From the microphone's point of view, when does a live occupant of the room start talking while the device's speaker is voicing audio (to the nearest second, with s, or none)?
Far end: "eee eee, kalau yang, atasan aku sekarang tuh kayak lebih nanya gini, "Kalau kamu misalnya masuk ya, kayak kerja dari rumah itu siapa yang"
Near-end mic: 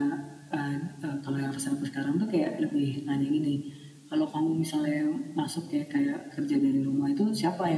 none